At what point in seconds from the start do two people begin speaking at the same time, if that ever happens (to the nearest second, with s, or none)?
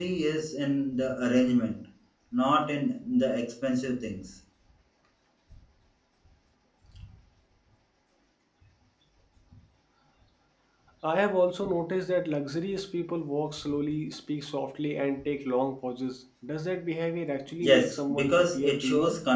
18 s